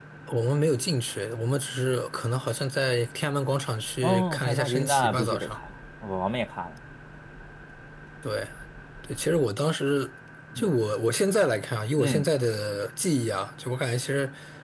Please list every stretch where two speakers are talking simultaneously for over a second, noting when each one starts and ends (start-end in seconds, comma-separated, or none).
4.0-5.6